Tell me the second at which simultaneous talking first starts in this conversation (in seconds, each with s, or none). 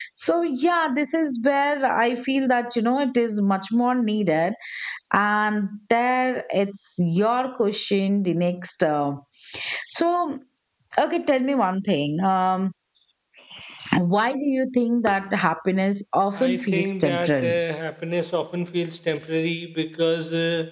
16.4 s